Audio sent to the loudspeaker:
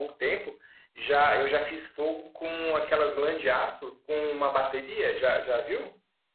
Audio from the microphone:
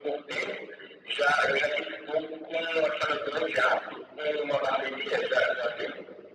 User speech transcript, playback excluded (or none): none